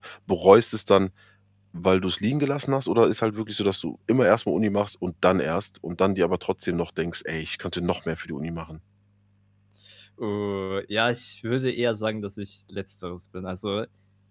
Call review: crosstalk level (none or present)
none